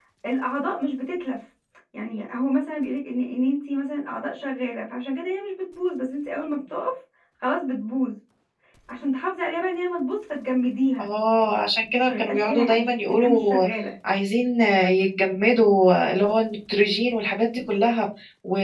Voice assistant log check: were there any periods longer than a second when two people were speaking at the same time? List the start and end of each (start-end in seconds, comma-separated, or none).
12.0-13.7